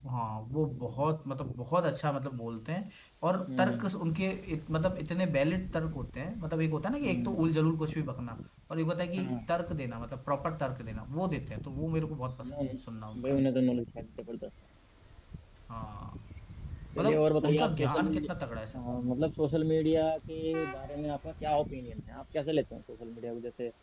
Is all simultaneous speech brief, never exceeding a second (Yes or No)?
No